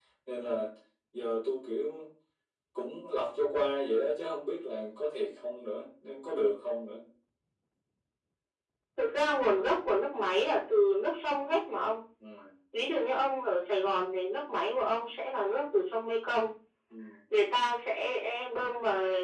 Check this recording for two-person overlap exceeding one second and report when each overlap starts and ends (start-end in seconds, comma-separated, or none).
none